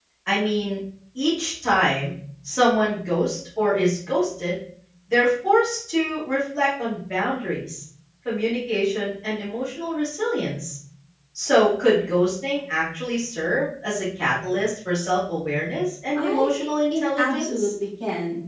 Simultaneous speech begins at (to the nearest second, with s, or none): 16 s